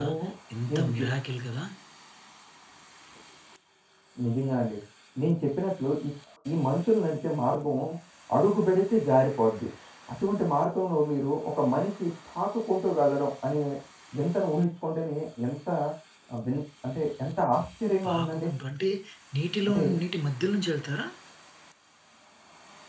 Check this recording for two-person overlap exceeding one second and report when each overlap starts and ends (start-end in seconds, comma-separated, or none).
none